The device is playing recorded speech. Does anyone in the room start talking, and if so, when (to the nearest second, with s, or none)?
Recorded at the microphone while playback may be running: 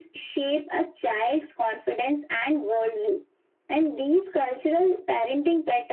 none